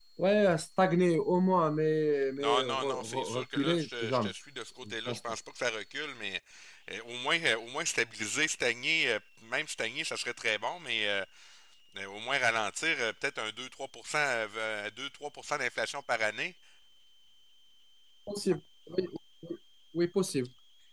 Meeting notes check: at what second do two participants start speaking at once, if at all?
2.4 s

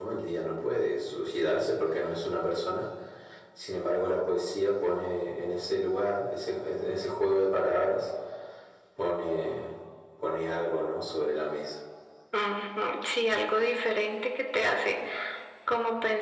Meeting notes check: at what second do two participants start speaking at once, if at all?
none

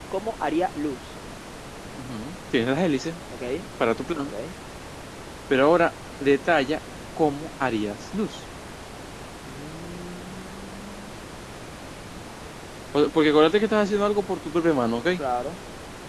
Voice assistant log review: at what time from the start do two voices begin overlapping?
none

